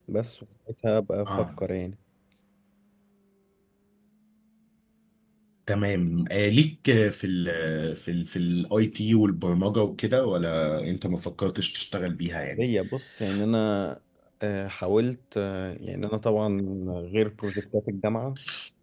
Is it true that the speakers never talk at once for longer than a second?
Yes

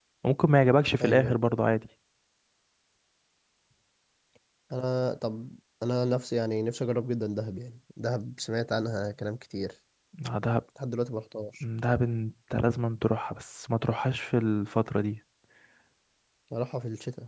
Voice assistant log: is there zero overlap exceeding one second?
Yes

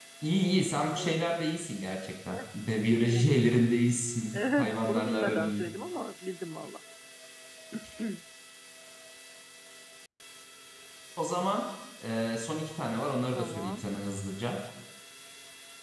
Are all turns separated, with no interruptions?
No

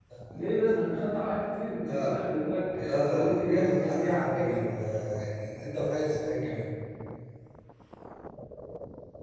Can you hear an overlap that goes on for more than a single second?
Yes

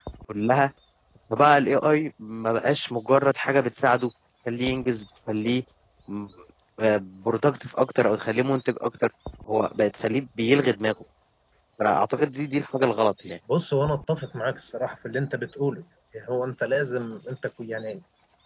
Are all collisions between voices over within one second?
Yes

